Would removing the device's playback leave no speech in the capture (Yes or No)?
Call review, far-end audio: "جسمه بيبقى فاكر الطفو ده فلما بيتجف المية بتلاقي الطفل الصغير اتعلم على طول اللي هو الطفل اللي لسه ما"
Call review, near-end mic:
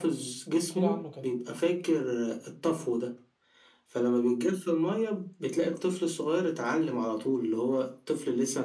No